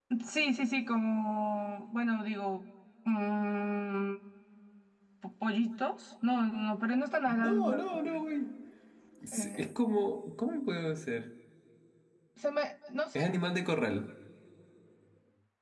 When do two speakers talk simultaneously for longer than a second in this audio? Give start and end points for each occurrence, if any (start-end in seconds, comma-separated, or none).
none